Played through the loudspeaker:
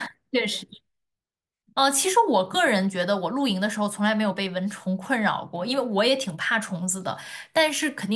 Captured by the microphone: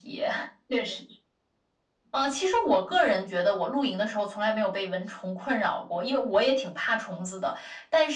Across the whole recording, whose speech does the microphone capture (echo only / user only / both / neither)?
echo only